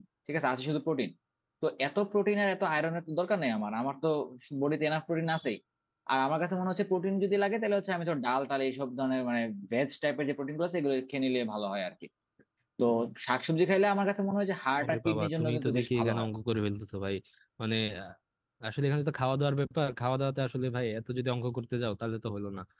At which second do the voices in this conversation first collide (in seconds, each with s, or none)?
14.8 s